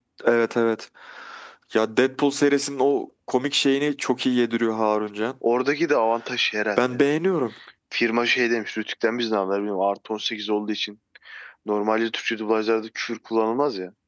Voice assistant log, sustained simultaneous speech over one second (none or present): none